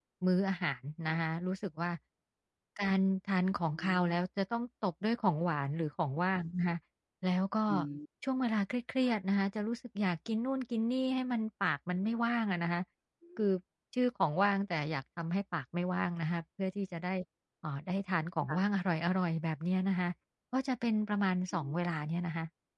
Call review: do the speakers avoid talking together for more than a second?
Yes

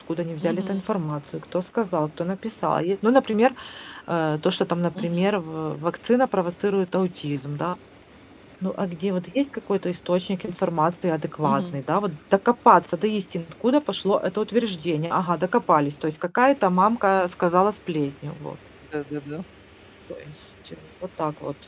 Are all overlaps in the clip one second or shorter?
Yes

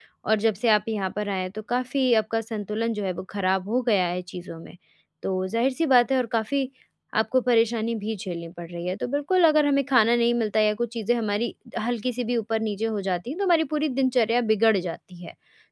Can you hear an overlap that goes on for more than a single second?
No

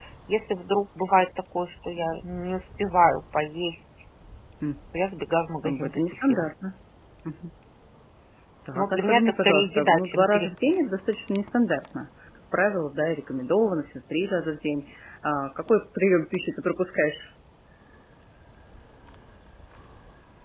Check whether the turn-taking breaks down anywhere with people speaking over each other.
Yes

